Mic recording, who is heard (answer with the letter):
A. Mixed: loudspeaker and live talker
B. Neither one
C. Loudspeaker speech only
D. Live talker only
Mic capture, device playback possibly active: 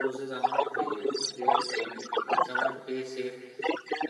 A